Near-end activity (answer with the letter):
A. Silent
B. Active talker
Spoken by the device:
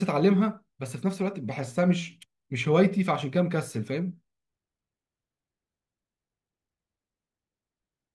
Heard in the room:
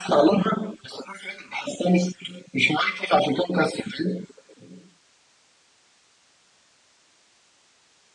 A